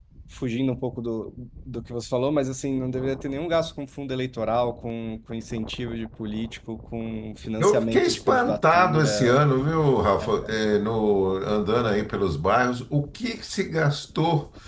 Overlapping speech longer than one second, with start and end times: 7.6-9.3

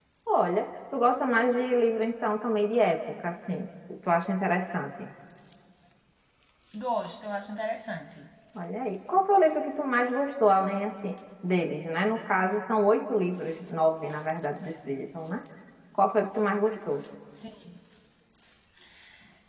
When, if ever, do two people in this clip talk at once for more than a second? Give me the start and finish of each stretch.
none

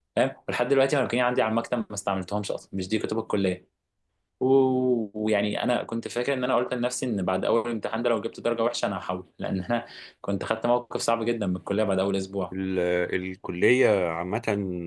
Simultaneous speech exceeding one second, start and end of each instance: none

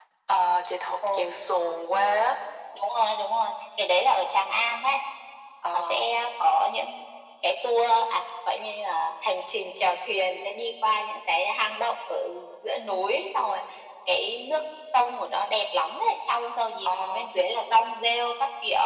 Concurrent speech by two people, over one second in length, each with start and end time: none

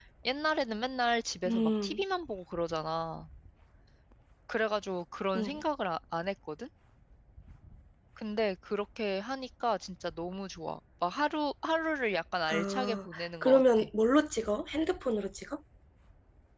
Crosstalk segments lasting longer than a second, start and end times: 12.5-13.9

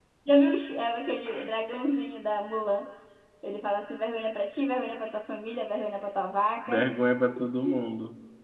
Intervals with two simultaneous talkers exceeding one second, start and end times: none

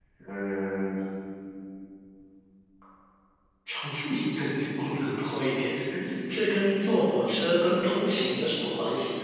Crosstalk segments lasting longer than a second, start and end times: none

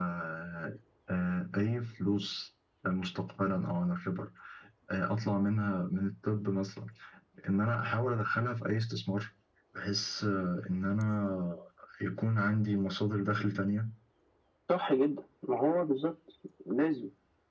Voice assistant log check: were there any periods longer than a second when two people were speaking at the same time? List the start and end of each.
none

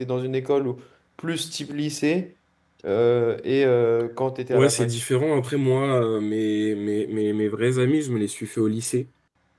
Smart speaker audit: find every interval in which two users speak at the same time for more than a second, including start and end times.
none

